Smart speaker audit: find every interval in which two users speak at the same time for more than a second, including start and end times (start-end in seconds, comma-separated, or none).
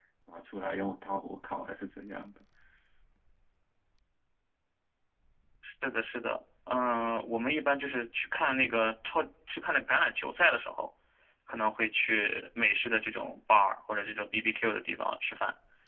none